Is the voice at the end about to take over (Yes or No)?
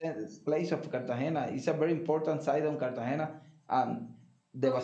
No